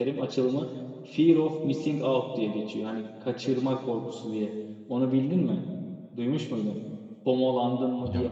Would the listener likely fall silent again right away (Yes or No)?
Yes